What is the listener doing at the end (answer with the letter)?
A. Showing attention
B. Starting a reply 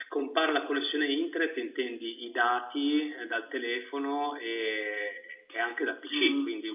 B